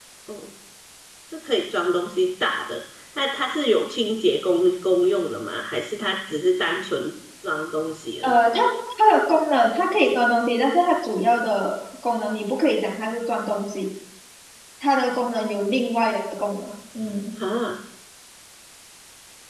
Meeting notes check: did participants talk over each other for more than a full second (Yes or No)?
No